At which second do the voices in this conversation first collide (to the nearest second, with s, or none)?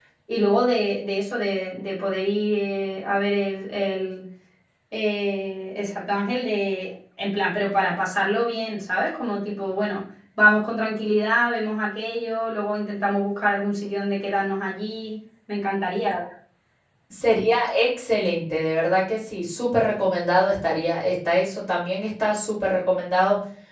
none